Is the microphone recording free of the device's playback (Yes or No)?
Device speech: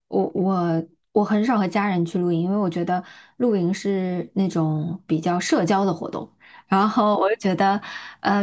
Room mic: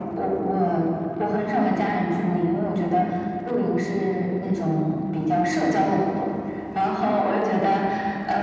No